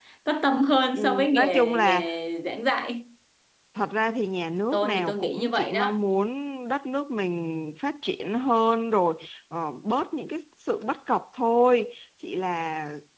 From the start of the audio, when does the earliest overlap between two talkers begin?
0.9 s

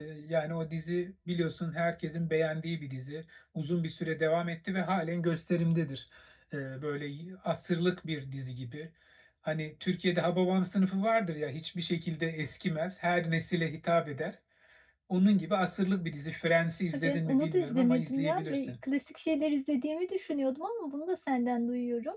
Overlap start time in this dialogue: 16.9 s

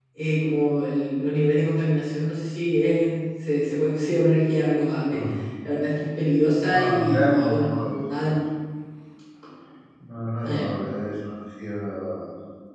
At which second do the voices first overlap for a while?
6.7 s

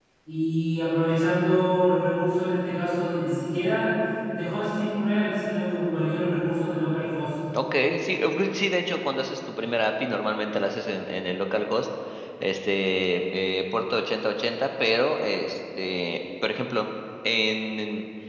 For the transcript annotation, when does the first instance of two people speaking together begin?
none

